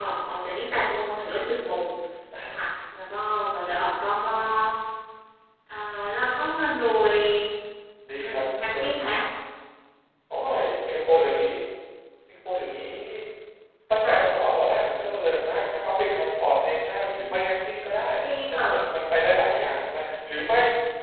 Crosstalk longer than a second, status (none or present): none